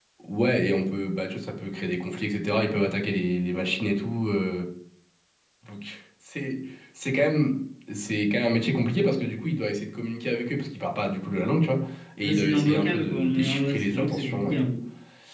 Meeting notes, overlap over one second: present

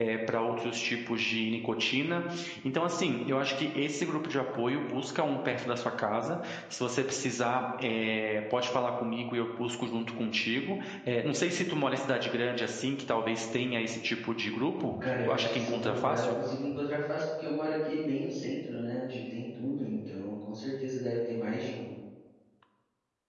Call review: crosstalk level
present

